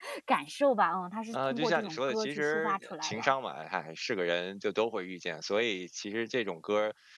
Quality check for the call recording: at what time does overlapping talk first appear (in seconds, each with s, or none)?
1.3 s